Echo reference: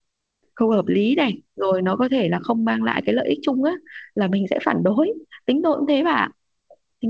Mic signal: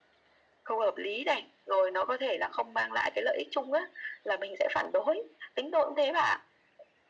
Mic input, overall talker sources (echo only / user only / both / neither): echo only